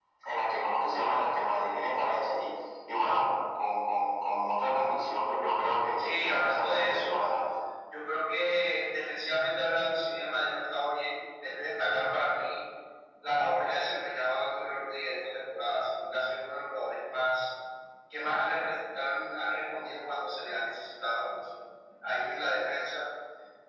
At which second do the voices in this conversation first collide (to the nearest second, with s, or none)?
6 s